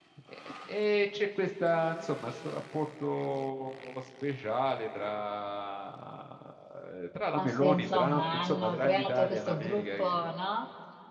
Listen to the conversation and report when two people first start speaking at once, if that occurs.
7.4 s

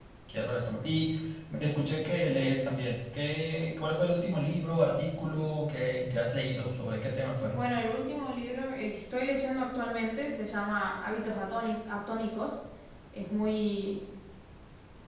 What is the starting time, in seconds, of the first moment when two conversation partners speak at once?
none

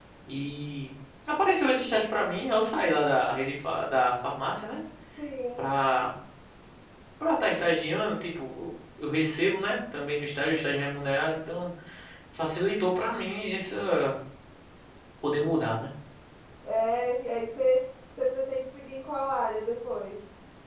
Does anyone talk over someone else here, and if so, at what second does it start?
none

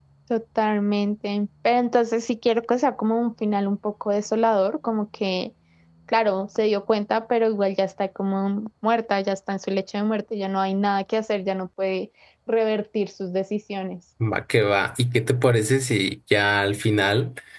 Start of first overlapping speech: none

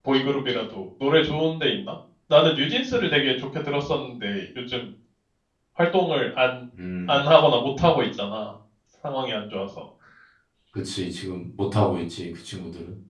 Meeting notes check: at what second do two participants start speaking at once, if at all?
none

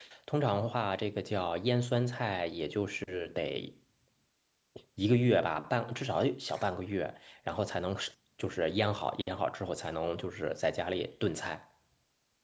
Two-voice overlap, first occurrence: none

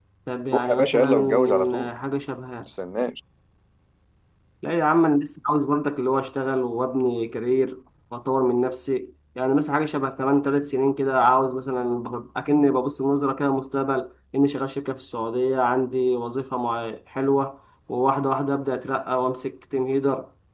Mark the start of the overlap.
0.5 s

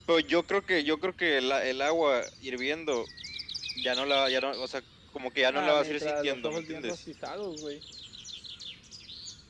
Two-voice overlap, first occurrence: 5.5 s

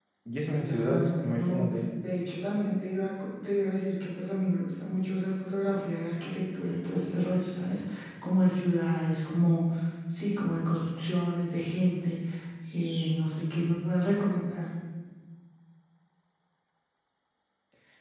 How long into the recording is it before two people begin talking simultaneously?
0.5 s

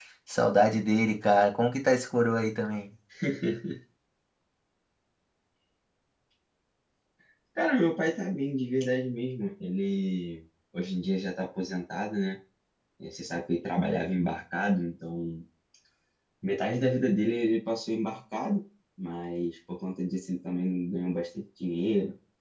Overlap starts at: none

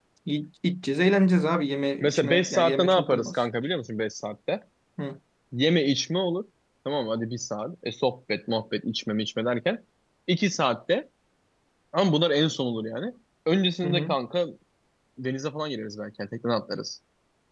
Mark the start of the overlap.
2.0 s

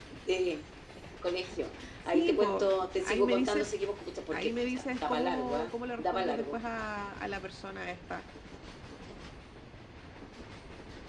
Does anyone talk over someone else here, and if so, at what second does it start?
2.1 s

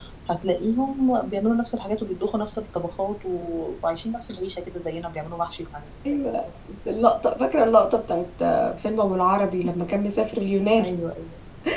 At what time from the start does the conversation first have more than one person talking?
none

